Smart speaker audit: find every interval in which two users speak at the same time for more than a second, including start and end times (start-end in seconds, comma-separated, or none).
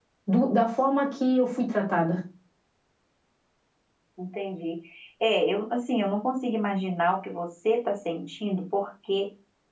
none